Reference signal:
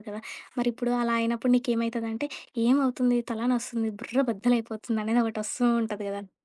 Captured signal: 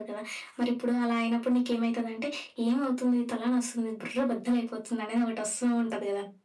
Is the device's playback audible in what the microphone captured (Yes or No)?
Yes